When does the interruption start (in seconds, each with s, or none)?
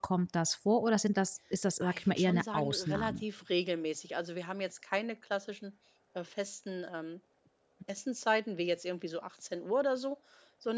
1.8 s